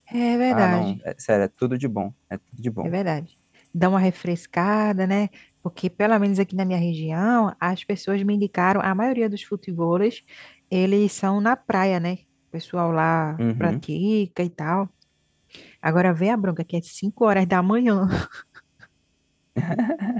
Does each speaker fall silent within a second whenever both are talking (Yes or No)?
Yes